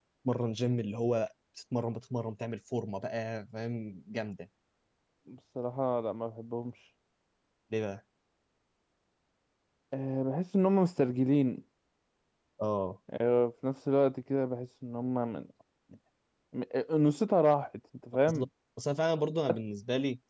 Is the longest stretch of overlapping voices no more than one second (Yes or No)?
Yes